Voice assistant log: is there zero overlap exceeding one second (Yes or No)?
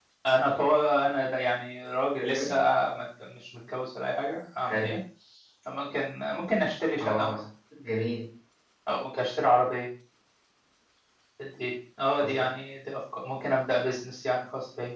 Yes